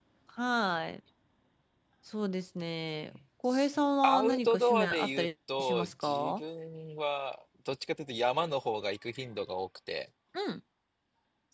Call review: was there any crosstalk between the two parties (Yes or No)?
Yes